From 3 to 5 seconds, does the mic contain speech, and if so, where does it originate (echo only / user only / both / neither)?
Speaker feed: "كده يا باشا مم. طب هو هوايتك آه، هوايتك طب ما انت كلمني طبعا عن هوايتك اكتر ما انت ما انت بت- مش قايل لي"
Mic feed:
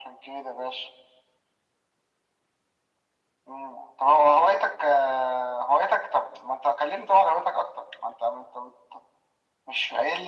echo only